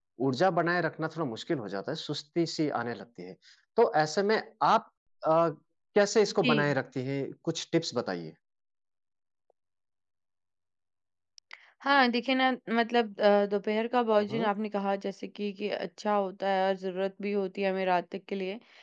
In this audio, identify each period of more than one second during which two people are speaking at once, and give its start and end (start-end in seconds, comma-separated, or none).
none